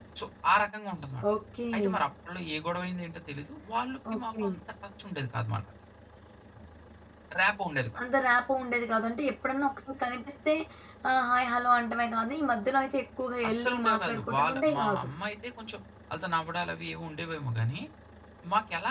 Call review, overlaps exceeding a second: present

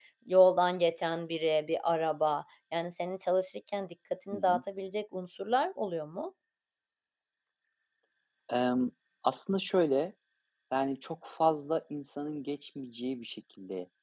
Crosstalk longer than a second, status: none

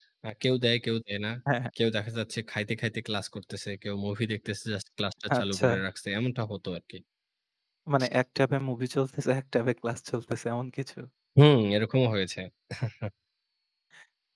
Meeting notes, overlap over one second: none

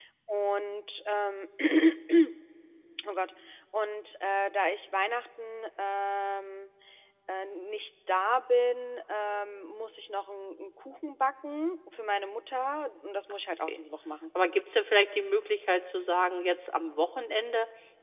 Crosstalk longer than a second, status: none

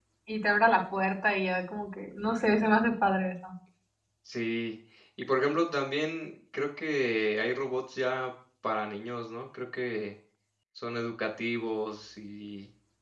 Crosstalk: none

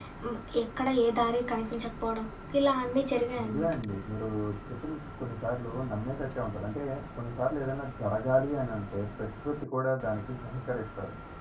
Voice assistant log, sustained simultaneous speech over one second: none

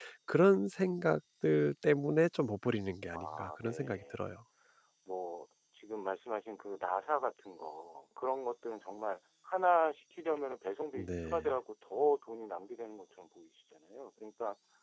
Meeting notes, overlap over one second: present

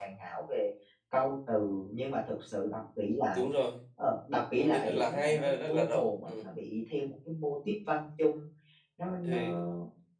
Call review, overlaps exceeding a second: present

